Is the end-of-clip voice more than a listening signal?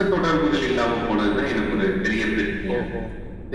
Yes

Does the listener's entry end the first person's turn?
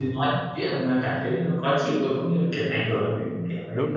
Yes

